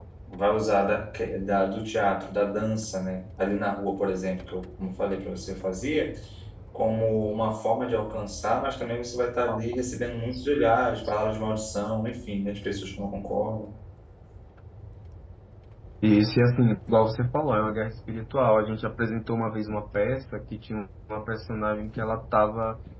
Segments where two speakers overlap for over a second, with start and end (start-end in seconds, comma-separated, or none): none